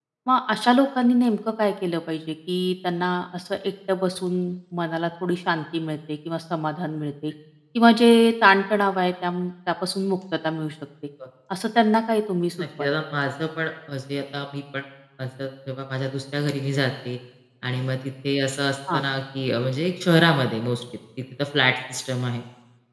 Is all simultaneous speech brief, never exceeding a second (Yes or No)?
Yes